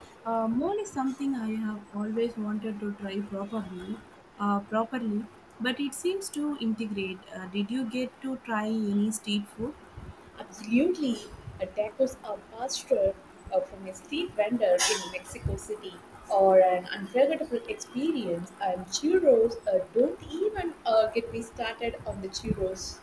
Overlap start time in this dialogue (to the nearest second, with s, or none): none